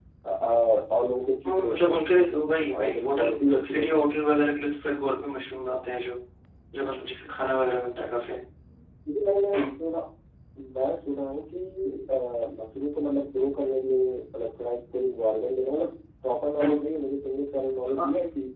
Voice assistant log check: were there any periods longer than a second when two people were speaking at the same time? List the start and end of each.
2.7-4.0

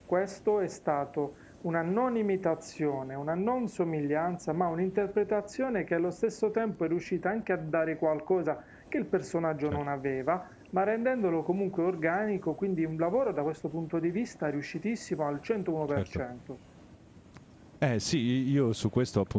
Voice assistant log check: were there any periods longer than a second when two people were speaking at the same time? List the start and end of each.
none

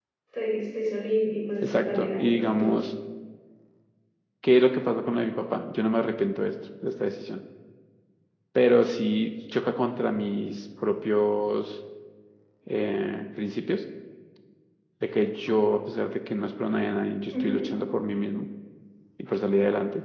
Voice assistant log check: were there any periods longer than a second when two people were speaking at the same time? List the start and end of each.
1.6-2.8

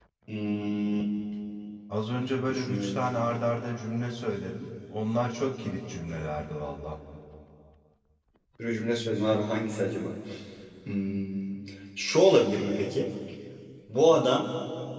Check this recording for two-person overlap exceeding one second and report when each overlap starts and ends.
none

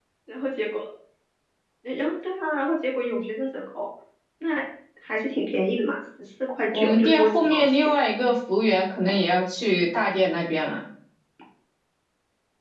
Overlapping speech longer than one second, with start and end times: 6.7-7.9

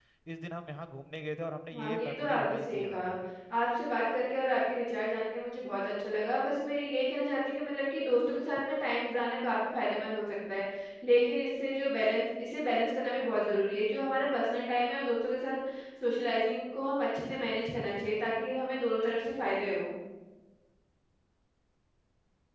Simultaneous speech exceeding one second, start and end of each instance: 1.8-3.1

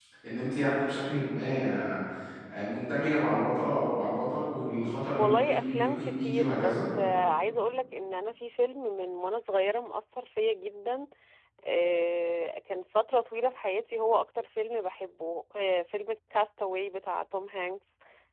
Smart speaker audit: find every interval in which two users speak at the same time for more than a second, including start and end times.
5.2-6.7

